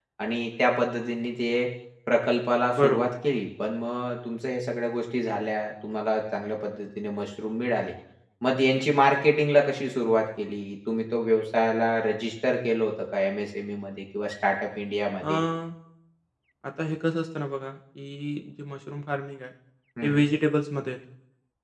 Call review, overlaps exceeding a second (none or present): none